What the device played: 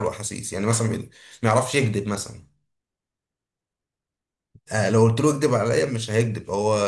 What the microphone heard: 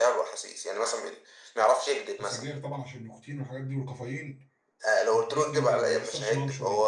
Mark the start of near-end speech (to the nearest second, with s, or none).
2 s